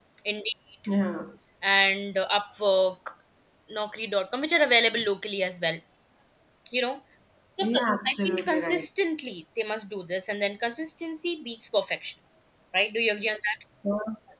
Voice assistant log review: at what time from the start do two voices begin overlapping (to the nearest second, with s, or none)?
8 s